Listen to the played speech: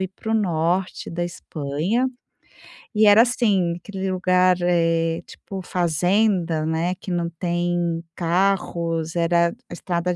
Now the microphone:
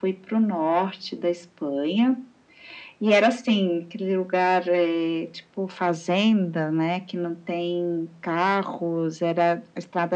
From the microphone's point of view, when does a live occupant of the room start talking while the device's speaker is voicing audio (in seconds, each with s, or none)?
none